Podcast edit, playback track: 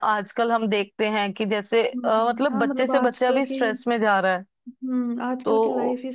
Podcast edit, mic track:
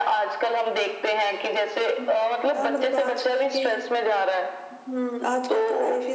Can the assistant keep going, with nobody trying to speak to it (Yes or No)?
Yes